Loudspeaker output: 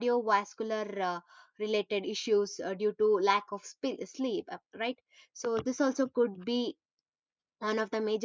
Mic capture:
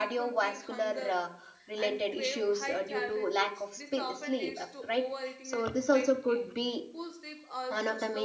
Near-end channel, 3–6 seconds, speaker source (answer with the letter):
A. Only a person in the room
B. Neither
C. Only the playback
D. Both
D